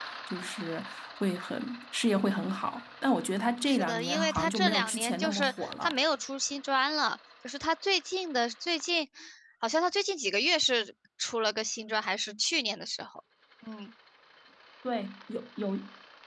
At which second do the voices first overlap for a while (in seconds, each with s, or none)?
3.6 s